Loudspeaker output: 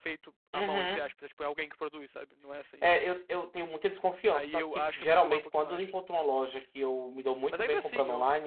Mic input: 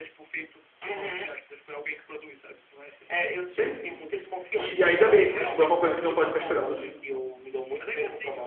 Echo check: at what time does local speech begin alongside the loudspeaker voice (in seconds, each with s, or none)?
3.4 s